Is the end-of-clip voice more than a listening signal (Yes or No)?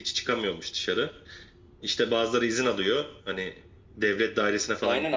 Yes